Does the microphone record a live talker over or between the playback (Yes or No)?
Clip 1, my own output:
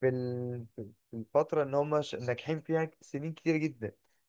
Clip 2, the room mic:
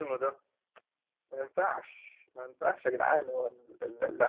Yes